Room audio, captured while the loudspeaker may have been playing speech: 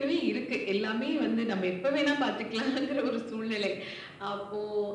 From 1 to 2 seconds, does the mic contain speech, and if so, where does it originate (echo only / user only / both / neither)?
both